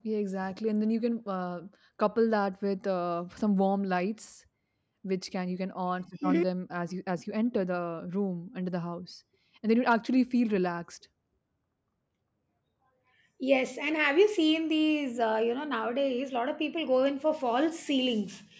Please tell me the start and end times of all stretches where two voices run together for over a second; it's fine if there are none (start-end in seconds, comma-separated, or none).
none